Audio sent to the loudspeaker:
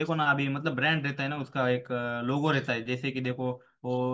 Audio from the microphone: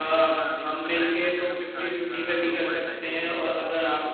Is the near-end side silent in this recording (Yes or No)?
No